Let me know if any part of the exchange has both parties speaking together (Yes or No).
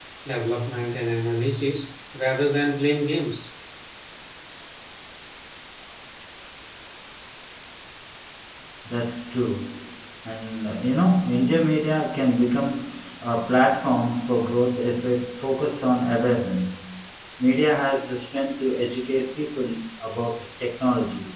No